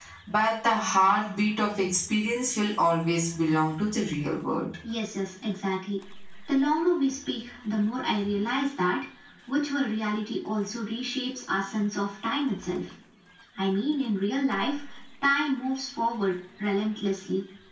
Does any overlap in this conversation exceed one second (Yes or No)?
No